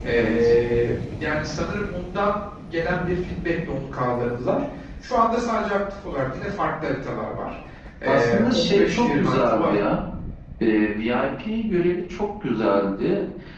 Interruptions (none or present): present